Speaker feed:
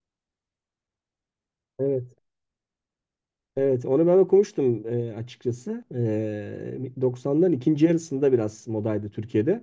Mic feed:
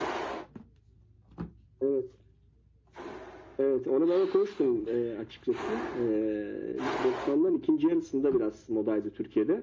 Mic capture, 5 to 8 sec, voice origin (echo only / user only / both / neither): echo only